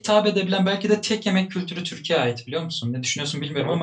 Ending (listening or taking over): taking over